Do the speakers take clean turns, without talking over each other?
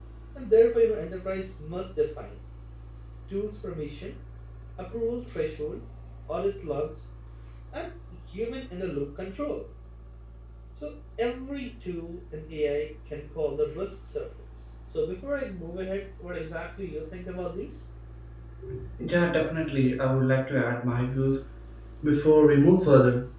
Yes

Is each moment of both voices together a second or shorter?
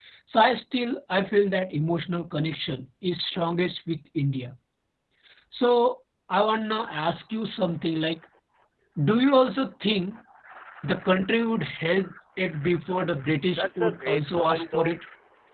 No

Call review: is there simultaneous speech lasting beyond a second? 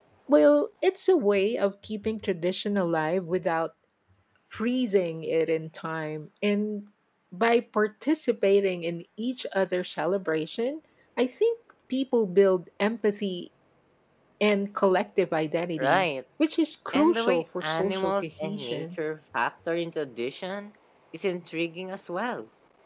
Yes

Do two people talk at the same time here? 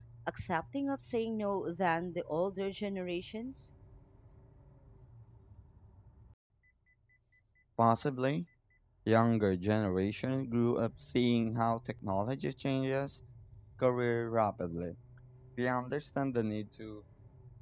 No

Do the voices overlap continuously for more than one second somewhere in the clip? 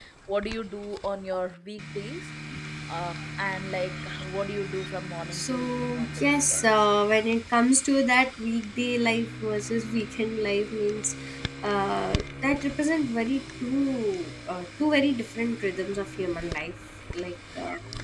Yes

